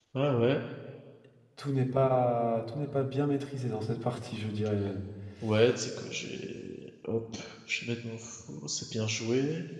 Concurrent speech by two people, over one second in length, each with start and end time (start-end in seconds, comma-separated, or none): none